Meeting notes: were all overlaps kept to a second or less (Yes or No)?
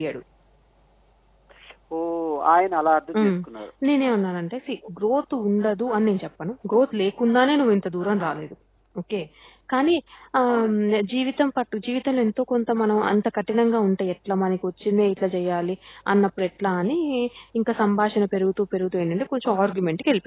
Yes